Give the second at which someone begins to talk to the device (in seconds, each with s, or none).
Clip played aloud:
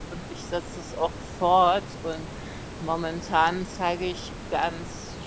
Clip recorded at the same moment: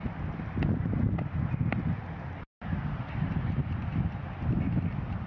none